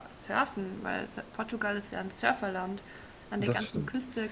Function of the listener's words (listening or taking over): listening